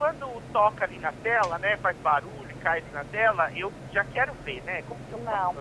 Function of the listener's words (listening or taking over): taking over